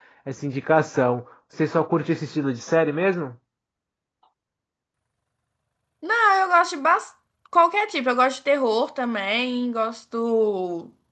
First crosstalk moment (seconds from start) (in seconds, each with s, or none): none